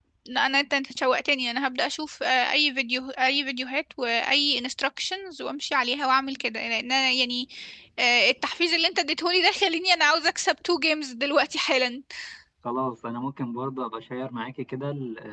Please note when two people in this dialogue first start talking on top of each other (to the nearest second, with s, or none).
none